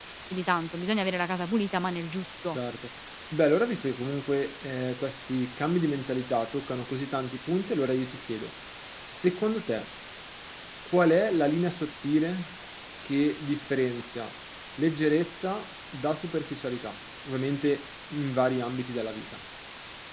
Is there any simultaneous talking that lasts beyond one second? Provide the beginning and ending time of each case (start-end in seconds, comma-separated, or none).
none